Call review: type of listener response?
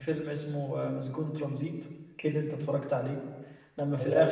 listening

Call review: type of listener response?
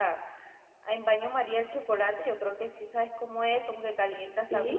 listening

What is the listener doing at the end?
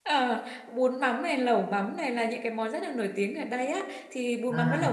listening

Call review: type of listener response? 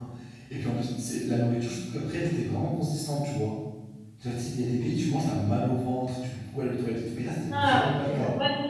taking over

